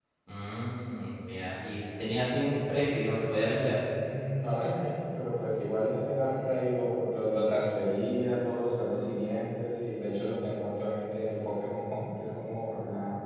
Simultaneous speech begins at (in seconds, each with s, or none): none